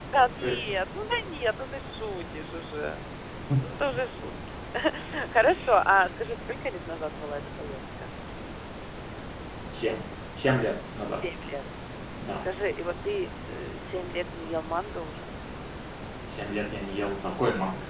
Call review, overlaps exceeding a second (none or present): none